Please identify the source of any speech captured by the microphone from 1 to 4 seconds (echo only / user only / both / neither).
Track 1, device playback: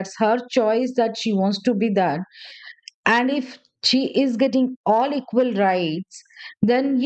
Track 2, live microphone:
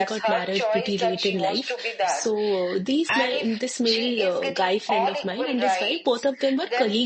both